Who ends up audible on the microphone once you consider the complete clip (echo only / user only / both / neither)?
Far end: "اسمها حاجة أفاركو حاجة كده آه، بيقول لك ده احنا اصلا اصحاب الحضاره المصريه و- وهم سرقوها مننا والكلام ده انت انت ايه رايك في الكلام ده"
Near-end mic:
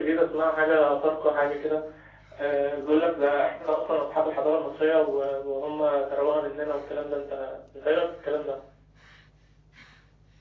echo only